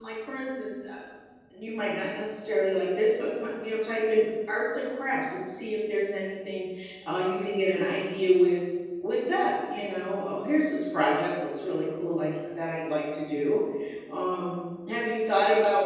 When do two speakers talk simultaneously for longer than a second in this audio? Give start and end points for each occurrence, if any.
none

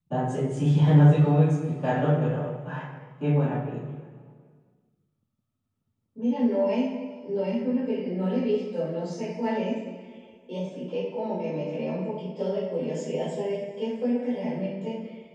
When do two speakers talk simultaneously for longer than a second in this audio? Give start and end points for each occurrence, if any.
none

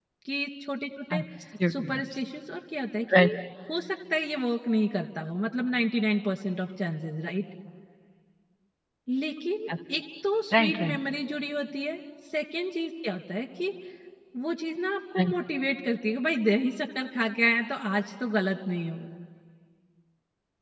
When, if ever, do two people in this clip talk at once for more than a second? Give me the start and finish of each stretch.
none

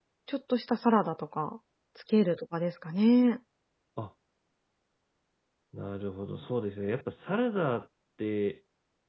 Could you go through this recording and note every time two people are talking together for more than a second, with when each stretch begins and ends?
none

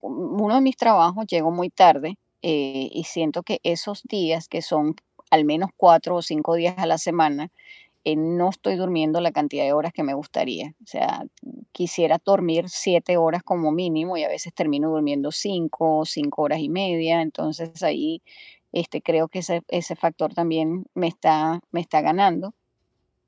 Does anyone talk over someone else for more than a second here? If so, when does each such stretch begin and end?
none

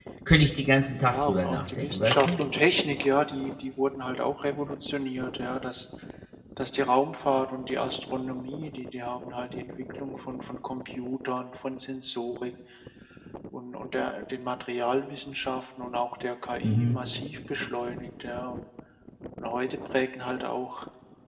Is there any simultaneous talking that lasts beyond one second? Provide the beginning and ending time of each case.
1.0-2.4

